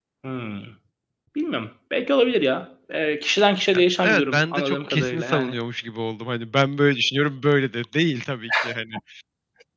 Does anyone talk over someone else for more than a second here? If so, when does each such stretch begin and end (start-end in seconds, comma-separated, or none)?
3.7-5.5